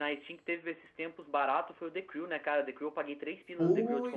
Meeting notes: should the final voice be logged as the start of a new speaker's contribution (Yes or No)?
Yes